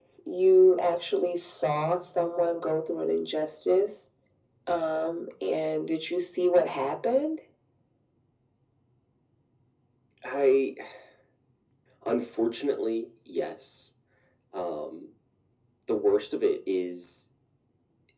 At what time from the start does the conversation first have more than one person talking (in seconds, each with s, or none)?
none